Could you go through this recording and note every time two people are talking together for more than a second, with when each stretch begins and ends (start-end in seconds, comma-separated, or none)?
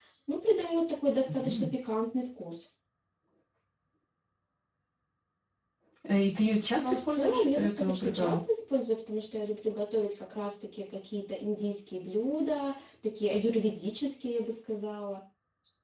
6.8-8.4